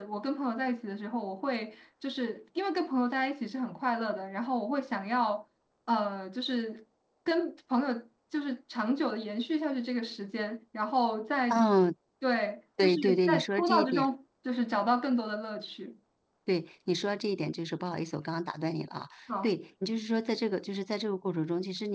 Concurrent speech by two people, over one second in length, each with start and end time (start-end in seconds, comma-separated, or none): 12.8-14.1